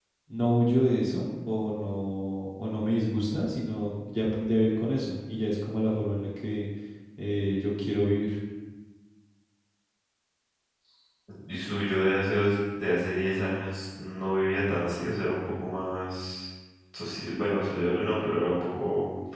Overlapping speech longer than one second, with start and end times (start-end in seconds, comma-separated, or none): none